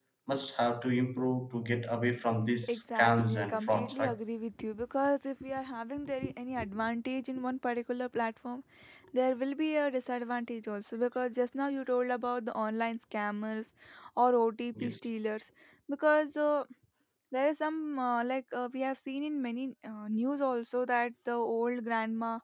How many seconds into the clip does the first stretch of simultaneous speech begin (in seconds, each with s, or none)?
2.7 s